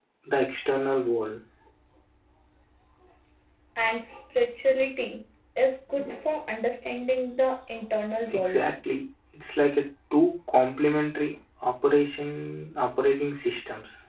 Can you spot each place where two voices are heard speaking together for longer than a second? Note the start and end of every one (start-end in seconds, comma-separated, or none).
none